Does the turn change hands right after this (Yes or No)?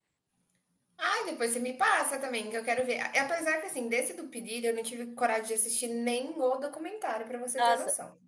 Yes